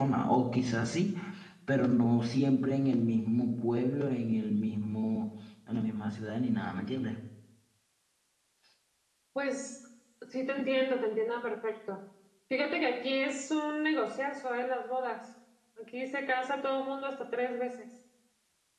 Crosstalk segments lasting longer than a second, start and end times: none

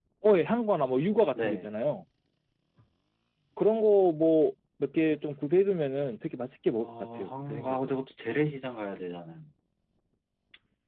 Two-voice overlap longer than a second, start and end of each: 6.8-8.0

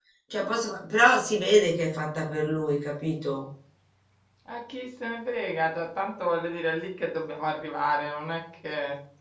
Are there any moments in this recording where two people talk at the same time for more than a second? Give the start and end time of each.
none

